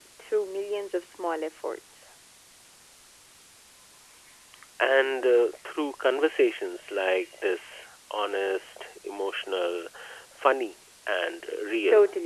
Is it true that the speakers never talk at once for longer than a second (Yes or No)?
Yes